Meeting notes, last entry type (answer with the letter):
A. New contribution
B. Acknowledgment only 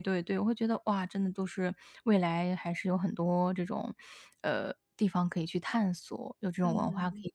A